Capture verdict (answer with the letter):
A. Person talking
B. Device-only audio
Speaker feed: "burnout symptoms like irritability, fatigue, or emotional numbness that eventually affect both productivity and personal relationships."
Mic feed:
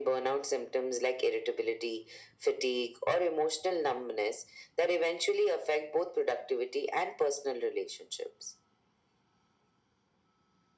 B